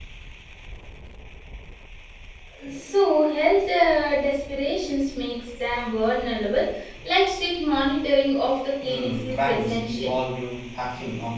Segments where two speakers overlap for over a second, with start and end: 8.8-10.2

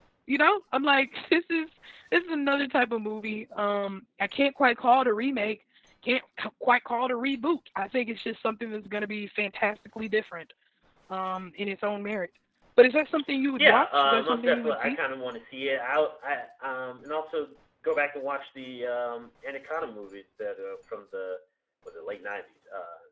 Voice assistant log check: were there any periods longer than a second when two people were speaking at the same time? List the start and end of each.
13.6-15.0

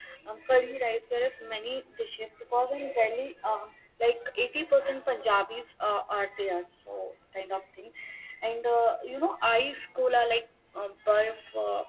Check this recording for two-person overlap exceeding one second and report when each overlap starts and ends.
none

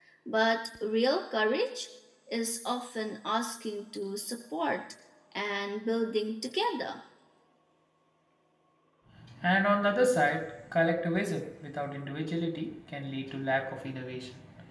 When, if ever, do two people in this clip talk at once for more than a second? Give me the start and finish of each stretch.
none

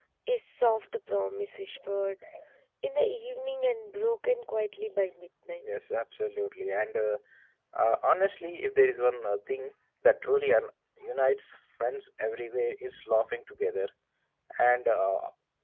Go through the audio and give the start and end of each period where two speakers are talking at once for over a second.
none

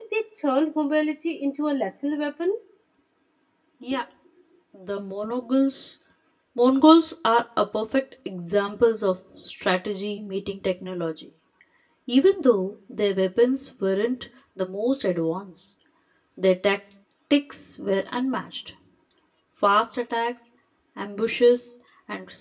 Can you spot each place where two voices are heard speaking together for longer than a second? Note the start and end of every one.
none

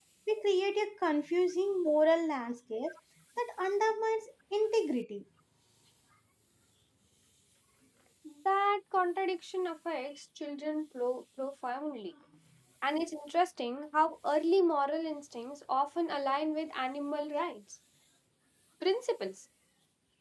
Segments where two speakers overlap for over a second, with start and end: none

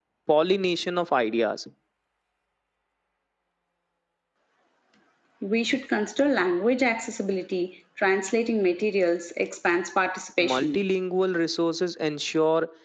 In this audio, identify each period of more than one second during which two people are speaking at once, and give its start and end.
none

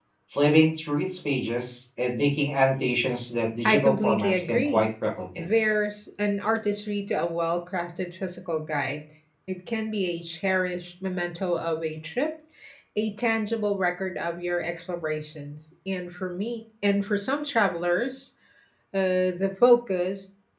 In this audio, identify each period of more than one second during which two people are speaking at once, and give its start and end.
3.6-4.9

